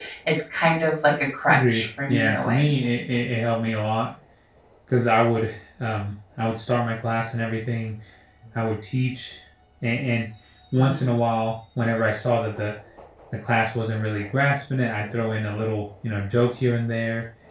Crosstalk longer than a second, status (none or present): present